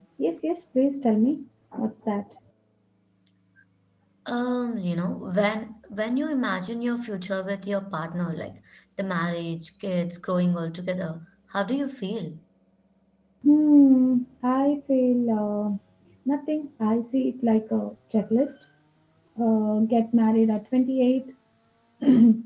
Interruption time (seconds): none

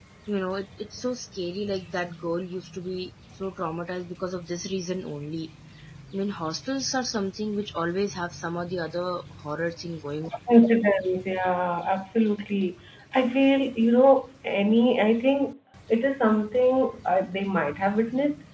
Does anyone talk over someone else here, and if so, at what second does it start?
none

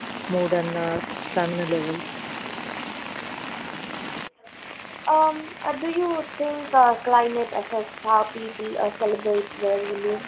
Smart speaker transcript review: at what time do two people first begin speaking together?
none

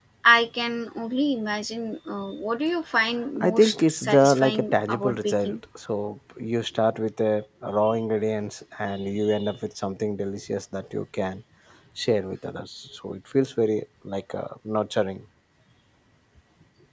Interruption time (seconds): 3.4 s

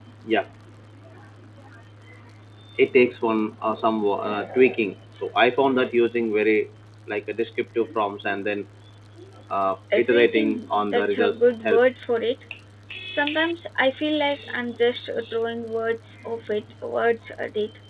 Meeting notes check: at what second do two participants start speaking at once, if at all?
10.0 s

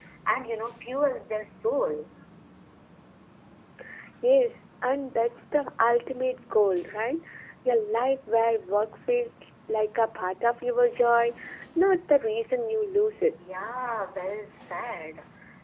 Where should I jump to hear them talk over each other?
none

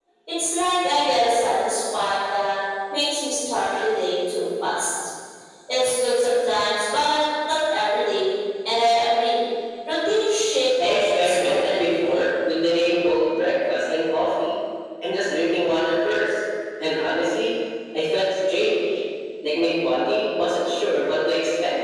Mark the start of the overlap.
10.8 s

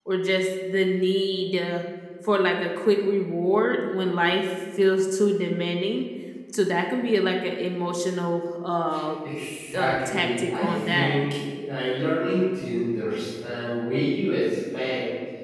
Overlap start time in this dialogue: 9.8 s

